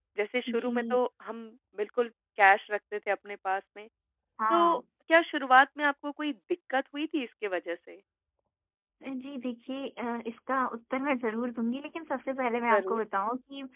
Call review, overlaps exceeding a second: none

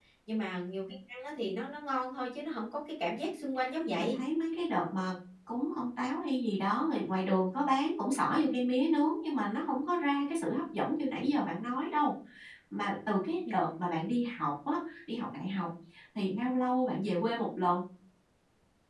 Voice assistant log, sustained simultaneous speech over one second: none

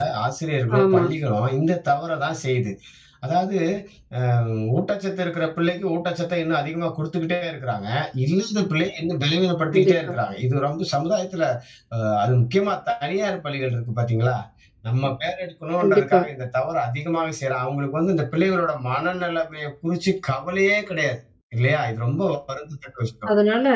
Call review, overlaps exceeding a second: none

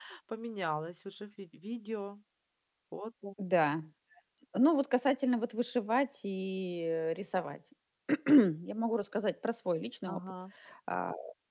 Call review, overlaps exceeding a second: none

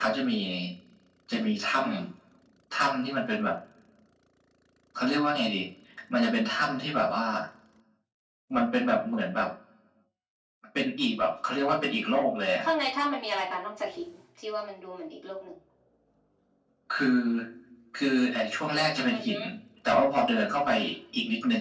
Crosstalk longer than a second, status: none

